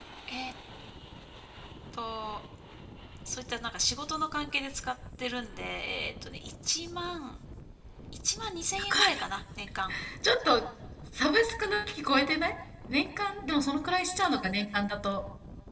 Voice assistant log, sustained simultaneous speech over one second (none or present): none